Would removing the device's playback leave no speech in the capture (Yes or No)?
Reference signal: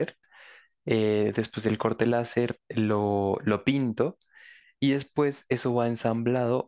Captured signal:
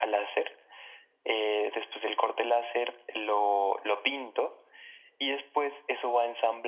Yes